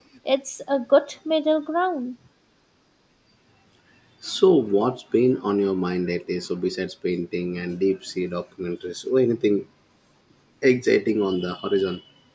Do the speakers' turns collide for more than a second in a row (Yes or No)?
No